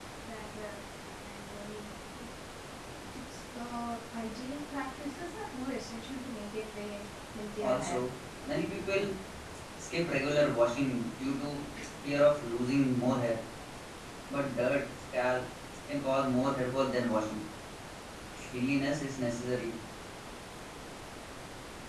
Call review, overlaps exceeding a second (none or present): none